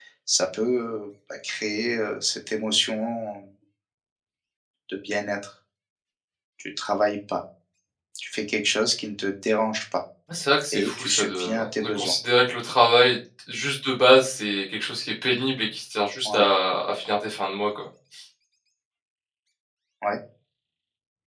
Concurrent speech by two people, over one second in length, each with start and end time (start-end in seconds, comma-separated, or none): 10.7-12.1